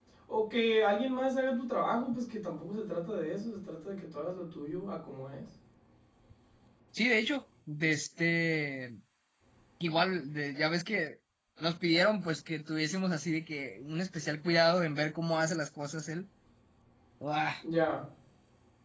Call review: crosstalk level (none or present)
none